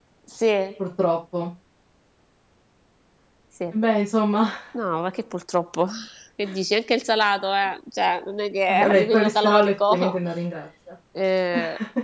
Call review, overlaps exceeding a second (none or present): present